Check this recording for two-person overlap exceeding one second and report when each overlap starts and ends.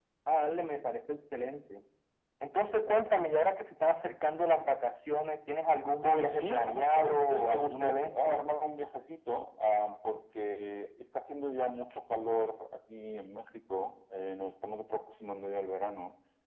6.0-8.4

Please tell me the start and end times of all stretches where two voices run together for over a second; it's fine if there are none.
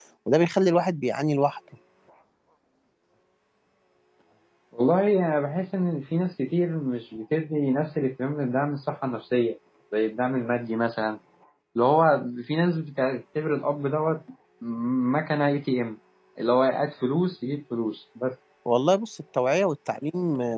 none

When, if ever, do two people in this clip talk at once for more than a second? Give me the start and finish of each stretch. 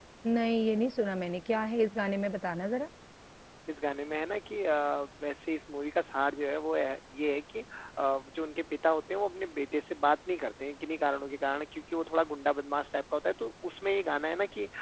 none

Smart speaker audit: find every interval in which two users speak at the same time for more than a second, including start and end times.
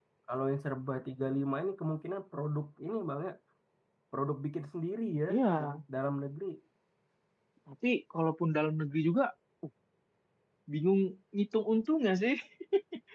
none

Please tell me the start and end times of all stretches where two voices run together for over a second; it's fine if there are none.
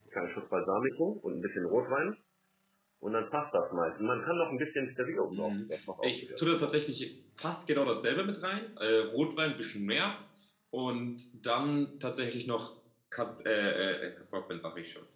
5.3-6.8

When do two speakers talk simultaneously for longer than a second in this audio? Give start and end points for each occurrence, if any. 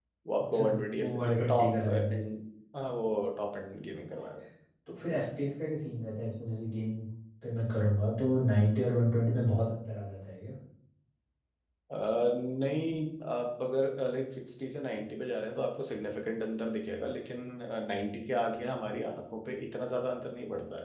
0.5-2.2

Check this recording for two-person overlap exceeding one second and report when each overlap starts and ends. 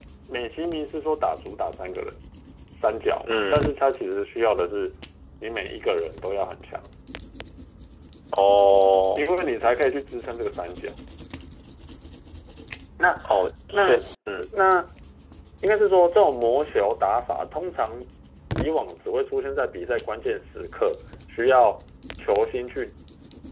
none

